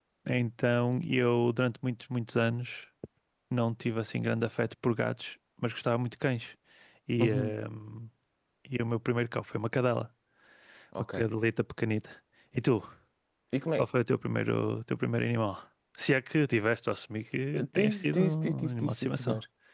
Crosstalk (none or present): present